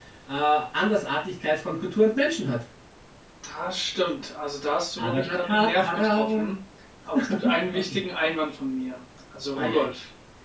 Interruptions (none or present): present